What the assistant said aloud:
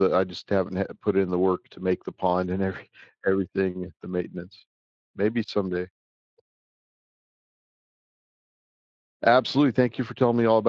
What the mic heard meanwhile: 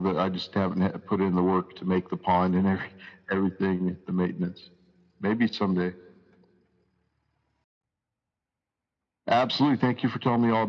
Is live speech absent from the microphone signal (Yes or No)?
Yes